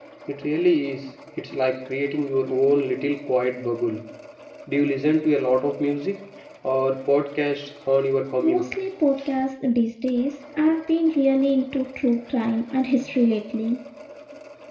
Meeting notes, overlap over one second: none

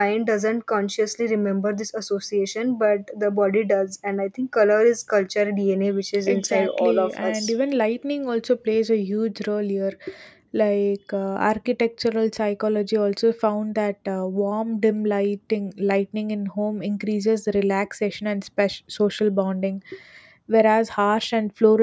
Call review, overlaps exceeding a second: present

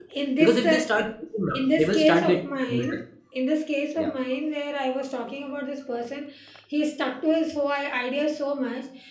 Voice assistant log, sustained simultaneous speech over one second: present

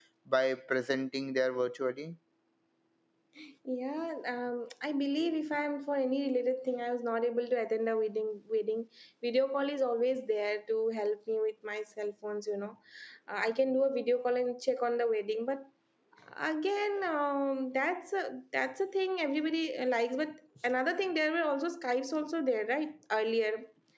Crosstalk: none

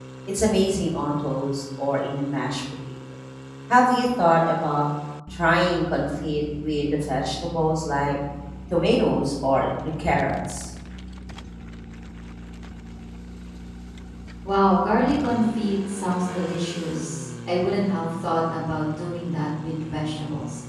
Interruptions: none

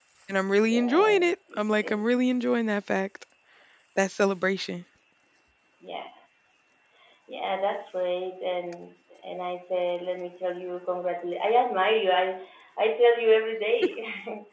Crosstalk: present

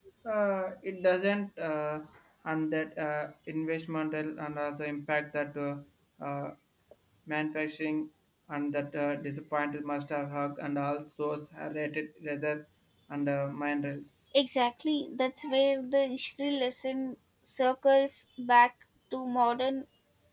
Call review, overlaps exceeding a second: none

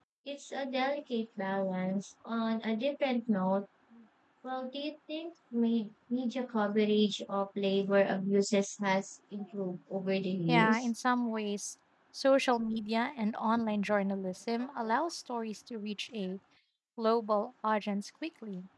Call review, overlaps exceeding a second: none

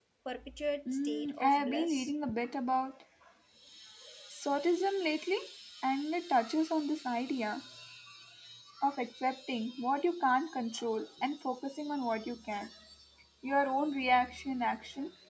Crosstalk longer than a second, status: present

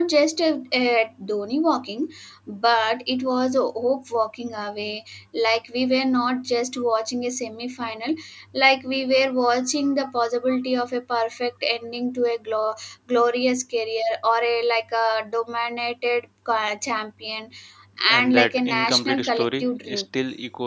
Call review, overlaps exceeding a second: present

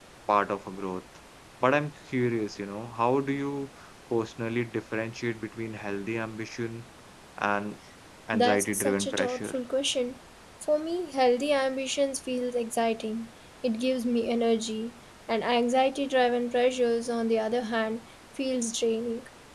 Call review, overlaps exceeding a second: present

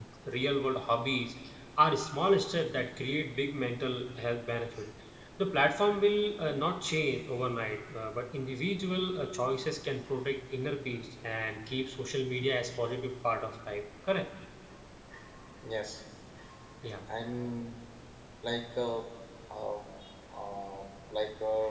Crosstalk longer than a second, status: none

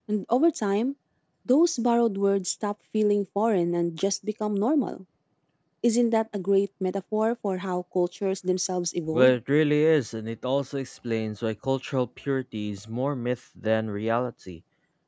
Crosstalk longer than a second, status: none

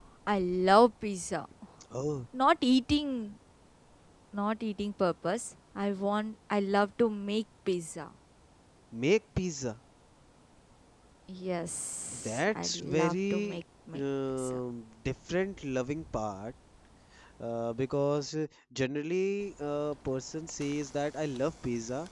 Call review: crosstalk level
present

